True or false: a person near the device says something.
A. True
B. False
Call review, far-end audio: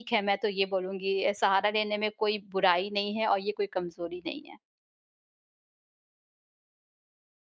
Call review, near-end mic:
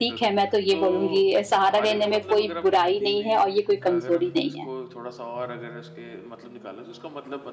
A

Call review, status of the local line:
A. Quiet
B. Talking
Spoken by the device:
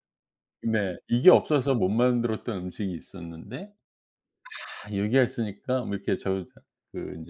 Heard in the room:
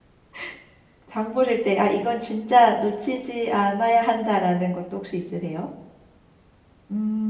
B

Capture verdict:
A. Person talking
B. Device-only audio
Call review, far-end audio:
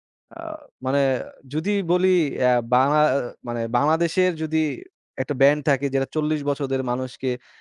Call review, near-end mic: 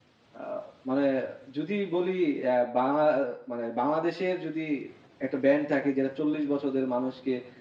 B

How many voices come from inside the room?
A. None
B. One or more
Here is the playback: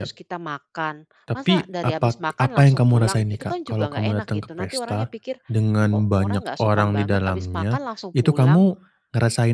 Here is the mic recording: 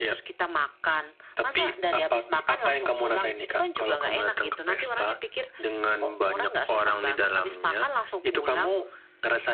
A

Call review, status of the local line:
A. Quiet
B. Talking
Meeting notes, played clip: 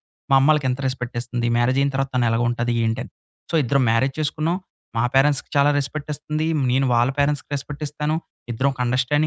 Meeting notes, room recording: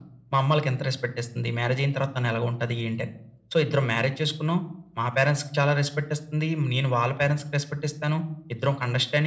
A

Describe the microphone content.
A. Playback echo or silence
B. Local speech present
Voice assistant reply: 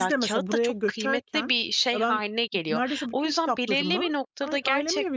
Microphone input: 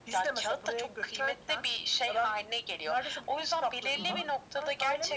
B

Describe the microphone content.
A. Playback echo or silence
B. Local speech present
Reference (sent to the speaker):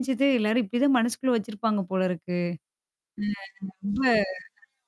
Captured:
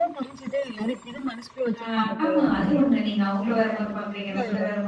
B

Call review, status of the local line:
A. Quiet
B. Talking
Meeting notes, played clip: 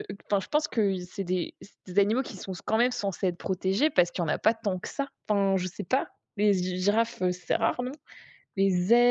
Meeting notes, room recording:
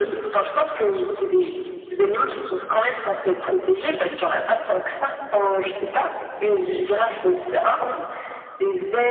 A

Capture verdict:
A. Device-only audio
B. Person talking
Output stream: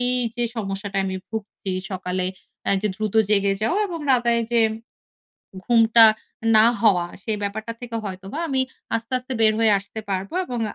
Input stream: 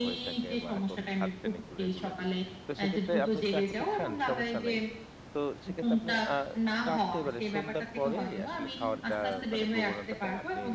B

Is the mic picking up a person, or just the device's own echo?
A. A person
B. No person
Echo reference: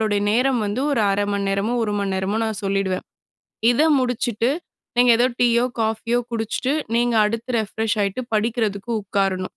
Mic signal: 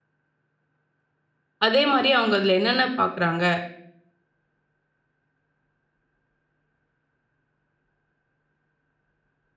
A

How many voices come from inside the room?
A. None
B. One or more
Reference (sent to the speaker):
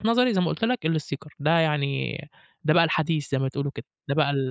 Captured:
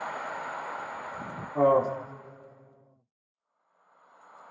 B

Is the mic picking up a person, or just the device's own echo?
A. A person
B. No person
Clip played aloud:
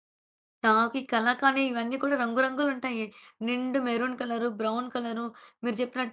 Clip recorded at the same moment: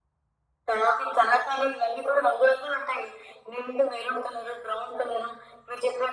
B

